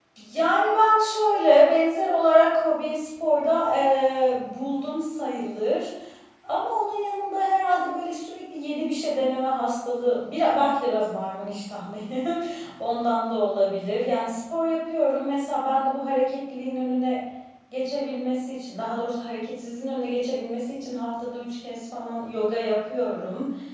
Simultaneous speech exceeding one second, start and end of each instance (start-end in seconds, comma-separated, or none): none